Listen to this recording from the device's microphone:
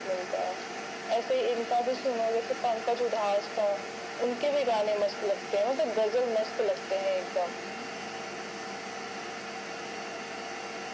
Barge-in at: none

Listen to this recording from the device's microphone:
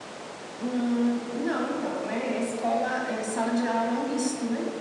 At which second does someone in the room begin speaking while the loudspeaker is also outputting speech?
none

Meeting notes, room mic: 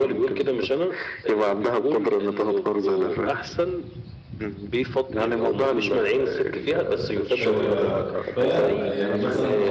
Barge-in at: 7.4 s

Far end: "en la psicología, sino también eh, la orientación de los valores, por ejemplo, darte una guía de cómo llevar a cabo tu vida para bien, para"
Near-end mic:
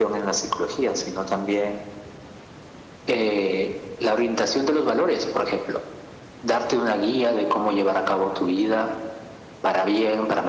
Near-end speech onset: none

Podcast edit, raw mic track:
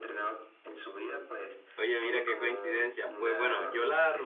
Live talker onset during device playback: 1.8 s

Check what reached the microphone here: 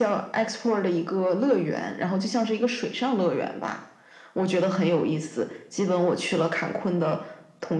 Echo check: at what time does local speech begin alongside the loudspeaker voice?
none

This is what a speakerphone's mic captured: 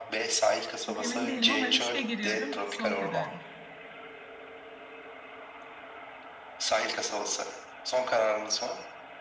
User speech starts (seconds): 0.8 s

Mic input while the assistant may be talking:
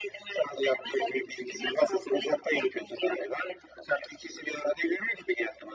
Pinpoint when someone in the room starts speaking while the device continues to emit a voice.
none

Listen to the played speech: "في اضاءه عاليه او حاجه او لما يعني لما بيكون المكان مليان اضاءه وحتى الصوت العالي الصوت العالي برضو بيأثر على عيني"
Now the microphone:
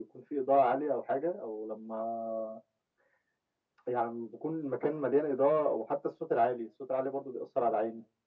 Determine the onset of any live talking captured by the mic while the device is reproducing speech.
none

